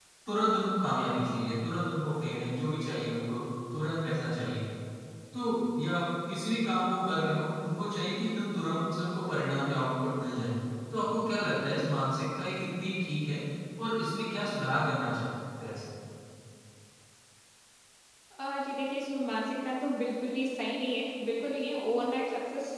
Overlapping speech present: No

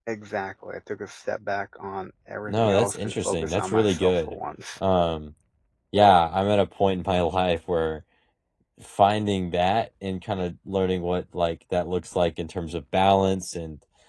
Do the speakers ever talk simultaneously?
Yes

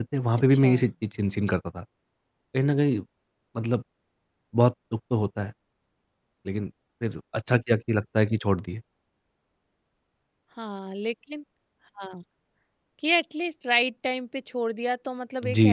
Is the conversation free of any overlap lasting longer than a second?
Yes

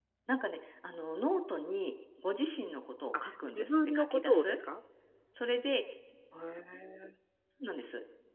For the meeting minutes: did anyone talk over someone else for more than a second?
Yes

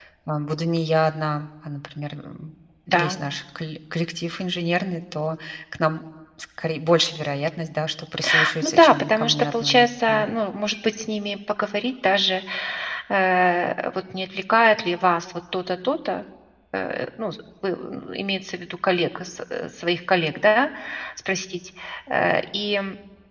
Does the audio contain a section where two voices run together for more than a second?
Yes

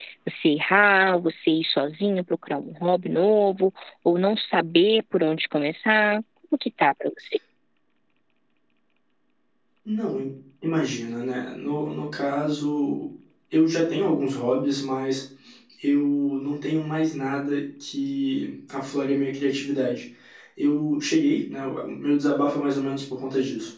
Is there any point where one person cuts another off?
No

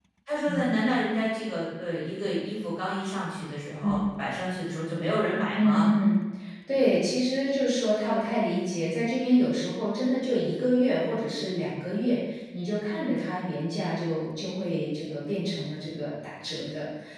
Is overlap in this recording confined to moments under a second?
Yes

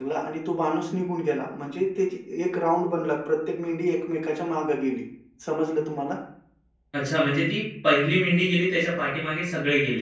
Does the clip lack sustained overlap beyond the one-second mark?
Yes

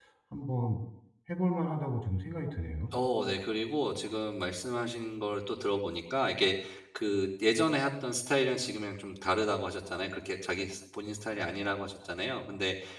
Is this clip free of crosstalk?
Yes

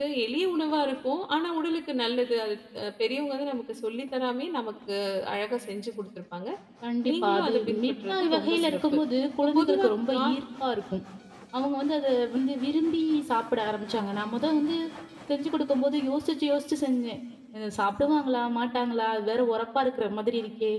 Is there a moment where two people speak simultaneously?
Yes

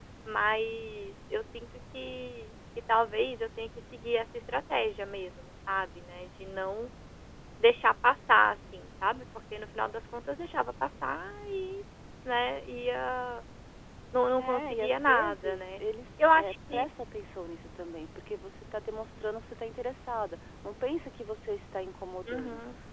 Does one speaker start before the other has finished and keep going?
Yes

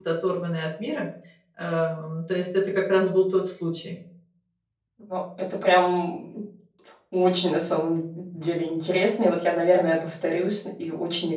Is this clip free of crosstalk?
Yes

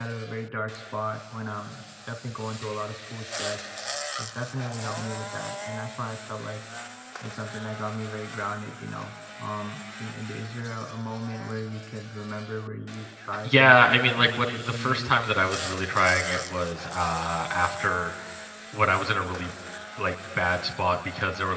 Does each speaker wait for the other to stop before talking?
No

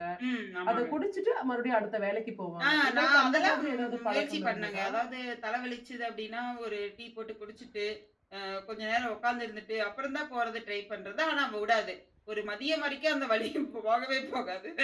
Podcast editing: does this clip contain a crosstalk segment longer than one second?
Yes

